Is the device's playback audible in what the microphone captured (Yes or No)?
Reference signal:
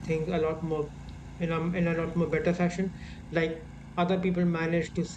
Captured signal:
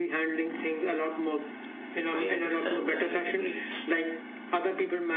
Yes